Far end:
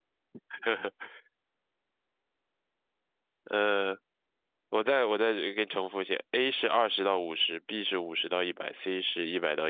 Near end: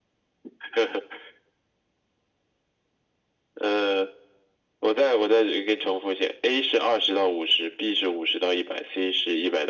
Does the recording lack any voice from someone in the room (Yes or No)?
Yes